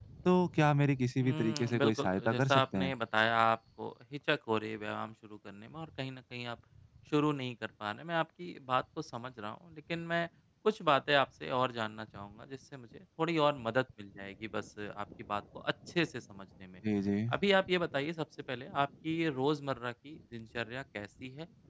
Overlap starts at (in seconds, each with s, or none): 1.2 s